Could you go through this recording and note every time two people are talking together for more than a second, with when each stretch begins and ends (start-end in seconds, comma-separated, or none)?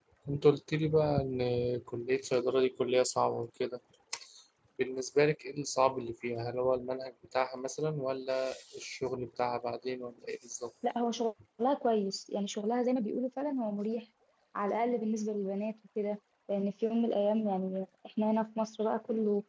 none